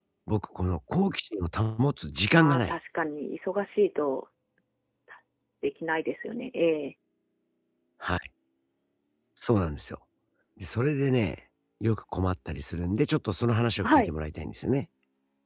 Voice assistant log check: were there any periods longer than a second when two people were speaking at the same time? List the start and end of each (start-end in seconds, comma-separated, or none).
none